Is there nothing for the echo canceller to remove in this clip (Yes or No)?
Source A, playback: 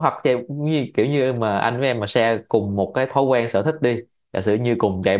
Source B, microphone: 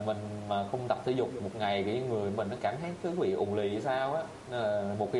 Yes